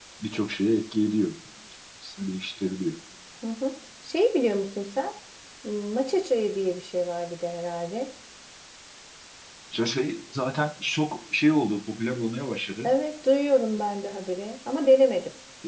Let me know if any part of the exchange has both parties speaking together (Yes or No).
No